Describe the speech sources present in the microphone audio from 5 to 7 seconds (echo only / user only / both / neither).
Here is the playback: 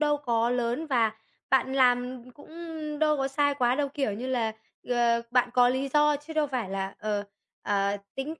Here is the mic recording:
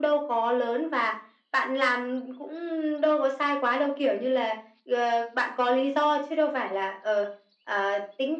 echo only